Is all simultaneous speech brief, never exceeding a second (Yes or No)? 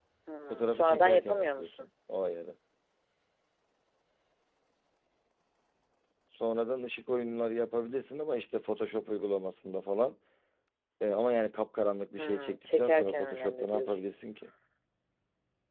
No